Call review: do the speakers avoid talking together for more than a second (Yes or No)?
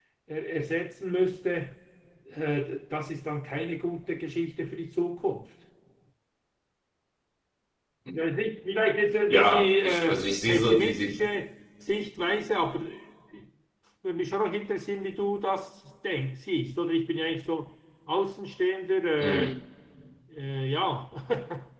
No